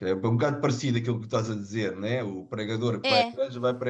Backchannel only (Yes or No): Yes